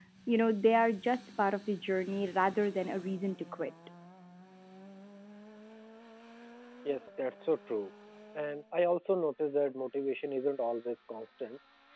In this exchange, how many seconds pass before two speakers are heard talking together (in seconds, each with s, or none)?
none